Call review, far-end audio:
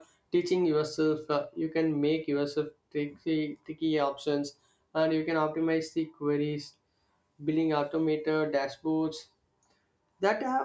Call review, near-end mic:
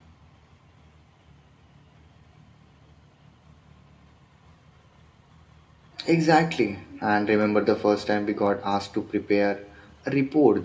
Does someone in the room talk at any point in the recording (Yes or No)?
Yes